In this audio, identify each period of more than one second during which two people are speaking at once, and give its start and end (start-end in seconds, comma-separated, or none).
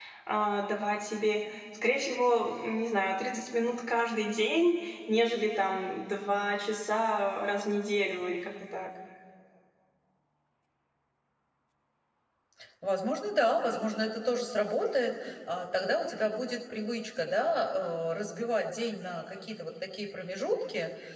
none